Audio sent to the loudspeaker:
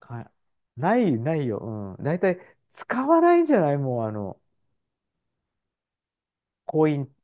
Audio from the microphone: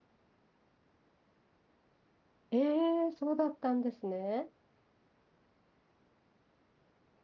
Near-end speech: present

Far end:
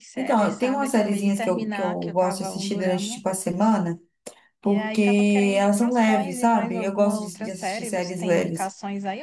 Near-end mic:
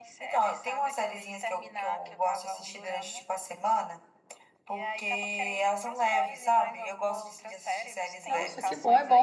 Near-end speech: present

